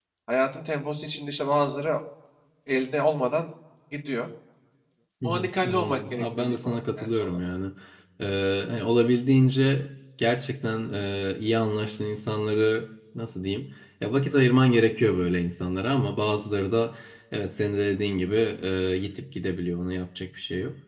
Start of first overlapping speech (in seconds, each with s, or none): 5.2 s